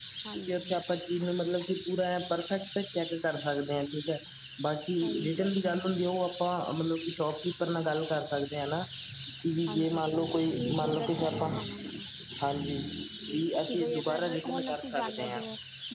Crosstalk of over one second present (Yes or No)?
Yes